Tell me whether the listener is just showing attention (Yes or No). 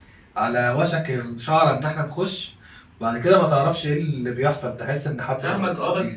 No